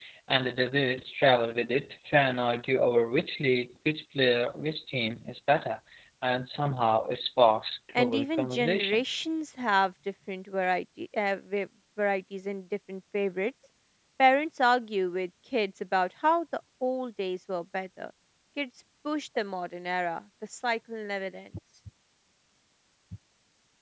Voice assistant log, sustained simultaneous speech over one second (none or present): present